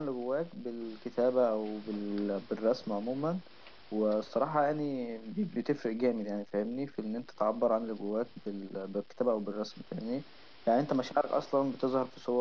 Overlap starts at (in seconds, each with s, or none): none